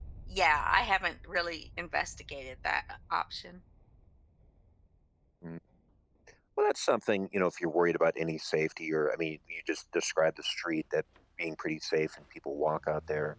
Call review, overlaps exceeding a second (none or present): none